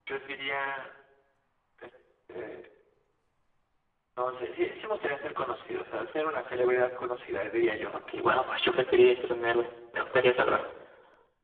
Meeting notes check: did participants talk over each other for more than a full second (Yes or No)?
No